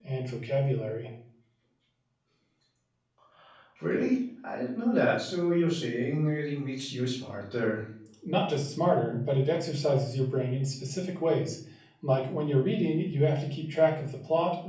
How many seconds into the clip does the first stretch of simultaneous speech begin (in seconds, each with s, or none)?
none